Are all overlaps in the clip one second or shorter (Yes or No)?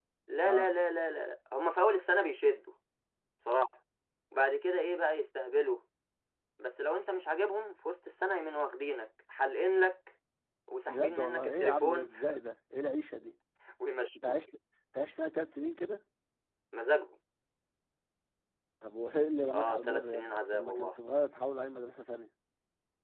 No